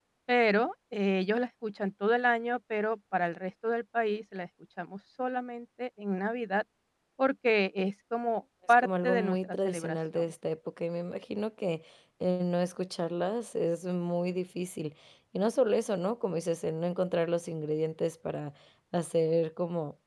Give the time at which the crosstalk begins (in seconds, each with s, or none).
8.8 s